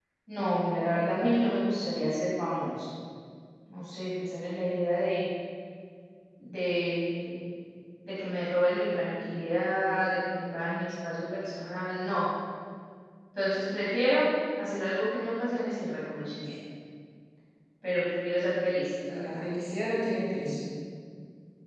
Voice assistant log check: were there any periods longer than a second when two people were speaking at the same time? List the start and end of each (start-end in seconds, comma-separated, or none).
none